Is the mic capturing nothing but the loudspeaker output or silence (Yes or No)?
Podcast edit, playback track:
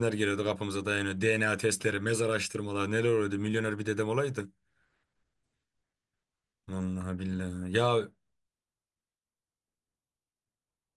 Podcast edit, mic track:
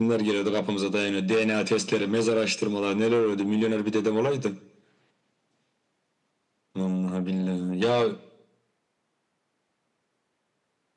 Yes